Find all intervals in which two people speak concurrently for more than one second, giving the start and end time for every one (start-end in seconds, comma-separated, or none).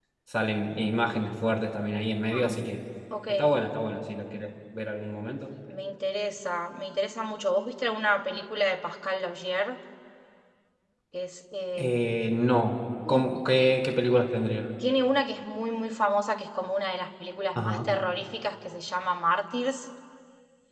none